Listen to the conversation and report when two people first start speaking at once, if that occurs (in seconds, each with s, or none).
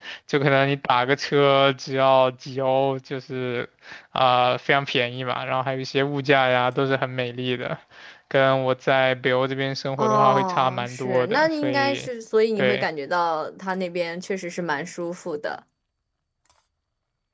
10.0 s